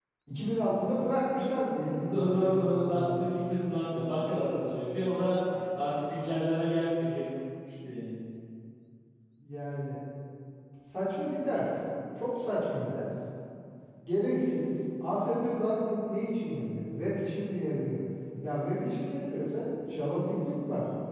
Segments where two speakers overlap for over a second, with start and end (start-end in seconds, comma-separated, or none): 1.8-3.3